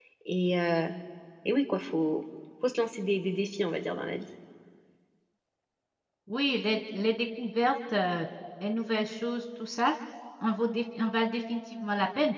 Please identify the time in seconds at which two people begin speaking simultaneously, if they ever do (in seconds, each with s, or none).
none